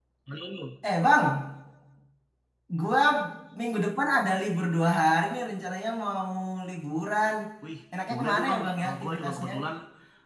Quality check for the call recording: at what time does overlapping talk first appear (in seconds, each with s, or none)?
8.1 s